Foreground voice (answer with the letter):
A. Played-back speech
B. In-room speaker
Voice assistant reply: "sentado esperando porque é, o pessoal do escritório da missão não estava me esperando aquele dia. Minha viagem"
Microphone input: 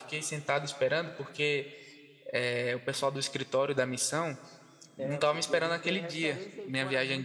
A